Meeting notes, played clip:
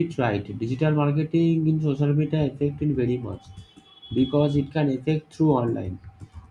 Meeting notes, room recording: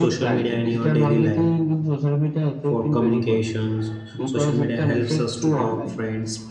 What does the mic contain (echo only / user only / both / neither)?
both